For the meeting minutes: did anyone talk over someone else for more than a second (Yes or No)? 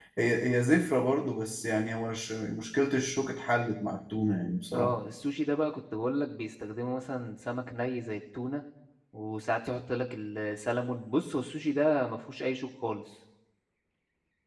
No